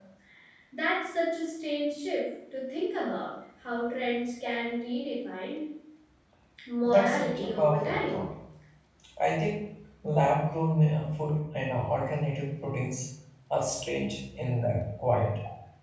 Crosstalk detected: Yes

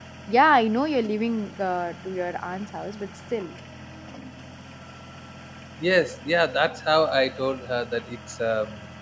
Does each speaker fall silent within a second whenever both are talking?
Yes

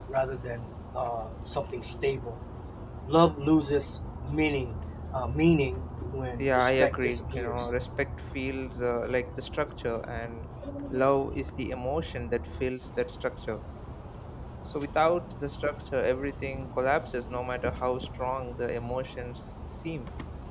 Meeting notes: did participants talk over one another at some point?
Yes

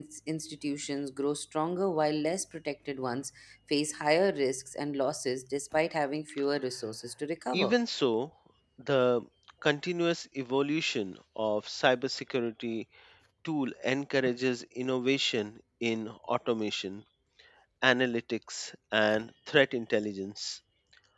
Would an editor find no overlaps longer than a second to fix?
Yes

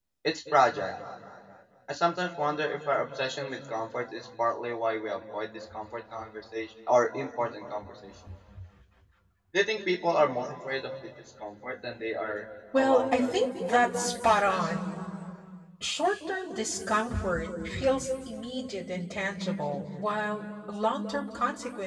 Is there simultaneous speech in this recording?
Yes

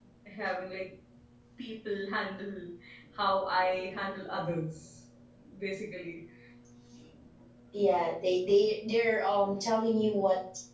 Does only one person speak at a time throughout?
Yes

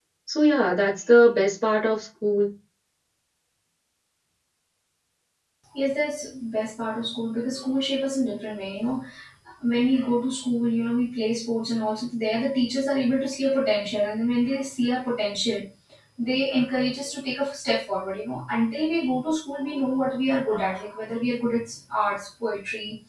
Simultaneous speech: No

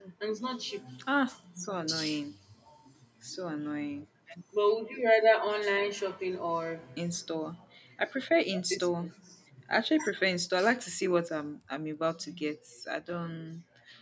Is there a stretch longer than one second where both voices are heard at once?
No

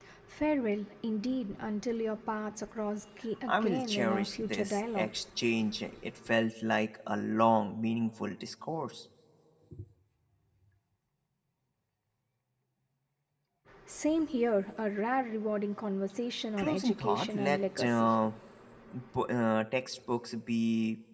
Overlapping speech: Yes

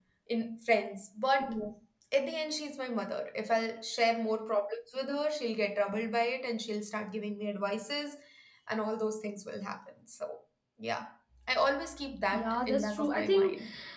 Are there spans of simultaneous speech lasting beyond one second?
Yes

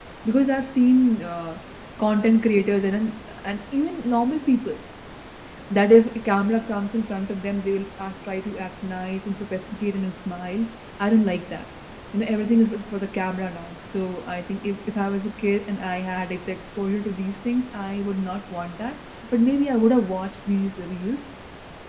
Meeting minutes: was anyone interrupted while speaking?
No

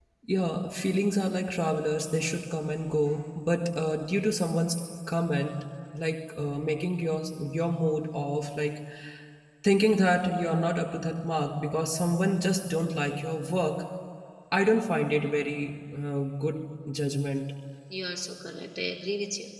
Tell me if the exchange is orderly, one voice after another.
Yes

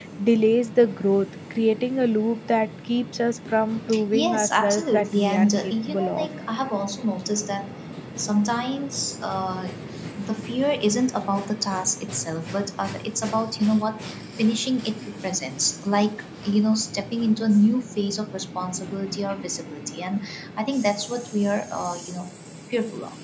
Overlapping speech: Yes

